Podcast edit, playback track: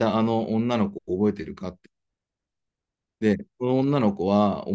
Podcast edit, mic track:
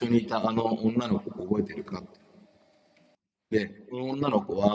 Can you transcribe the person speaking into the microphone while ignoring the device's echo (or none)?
none